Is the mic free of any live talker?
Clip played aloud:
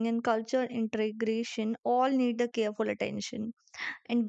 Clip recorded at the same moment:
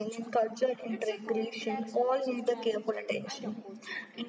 No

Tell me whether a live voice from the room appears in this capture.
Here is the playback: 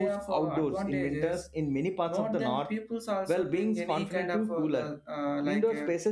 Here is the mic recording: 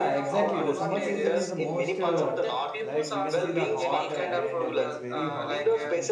Yes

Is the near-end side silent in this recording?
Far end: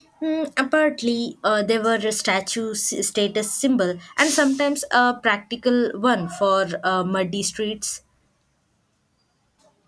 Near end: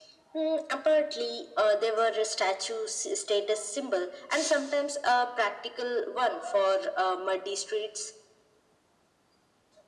Yes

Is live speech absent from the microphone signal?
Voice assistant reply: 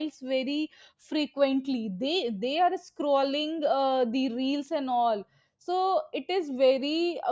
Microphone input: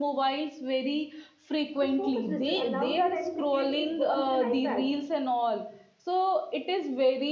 No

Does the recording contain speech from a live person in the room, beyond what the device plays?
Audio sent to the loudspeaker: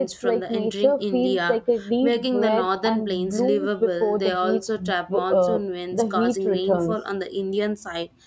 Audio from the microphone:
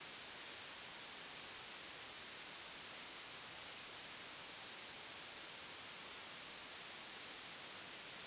No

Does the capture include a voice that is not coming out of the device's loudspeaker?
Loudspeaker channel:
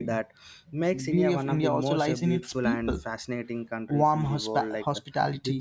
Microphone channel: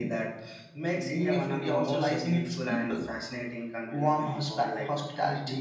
No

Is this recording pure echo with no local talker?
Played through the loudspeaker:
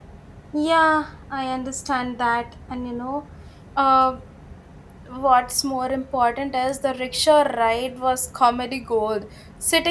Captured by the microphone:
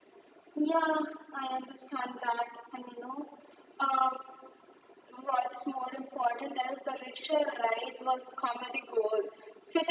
Yes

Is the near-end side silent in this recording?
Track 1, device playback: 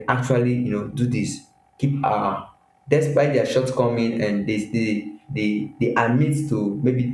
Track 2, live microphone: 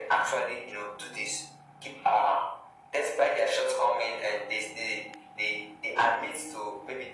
Yes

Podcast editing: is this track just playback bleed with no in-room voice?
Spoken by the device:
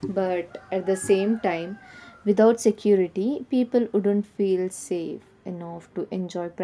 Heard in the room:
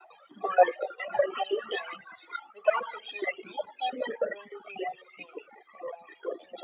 Yes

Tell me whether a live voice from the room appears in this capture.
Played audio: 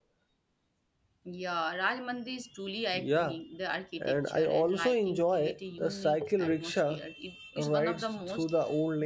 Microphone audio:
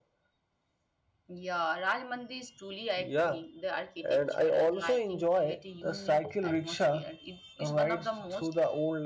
No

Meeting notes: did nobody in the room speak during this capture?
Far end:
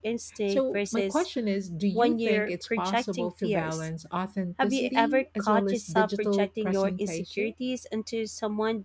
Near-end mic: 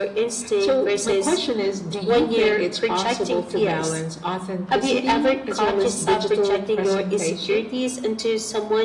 Yes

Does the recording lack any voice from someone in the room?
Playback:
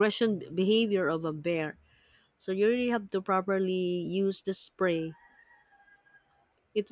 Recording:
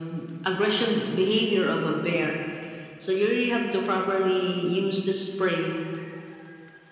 Yes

